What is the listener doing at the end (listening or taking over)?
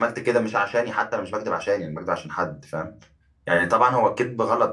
listening